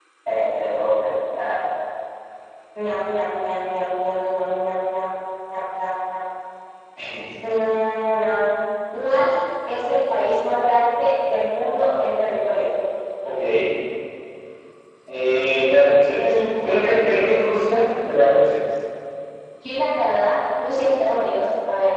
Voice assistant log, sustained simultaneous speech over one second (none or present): none